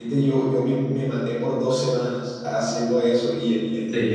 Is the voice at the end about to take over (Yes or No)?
No